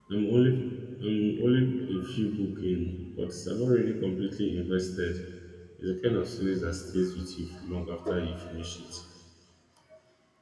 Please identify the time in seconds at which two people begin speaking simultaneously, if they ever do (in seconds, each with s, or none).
none